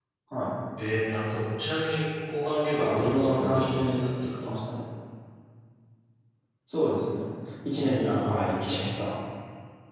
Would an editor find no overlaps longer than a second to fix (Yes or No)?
No